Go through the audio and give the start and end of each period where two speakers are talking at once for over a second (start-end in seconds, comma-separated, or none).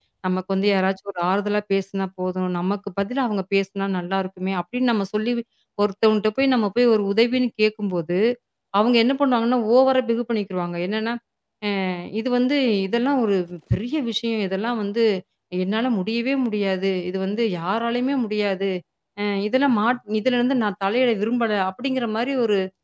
none